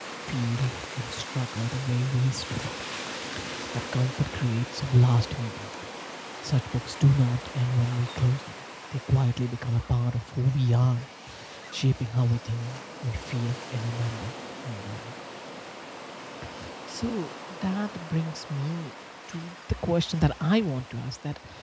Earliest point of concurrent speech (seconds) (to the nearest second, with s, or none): none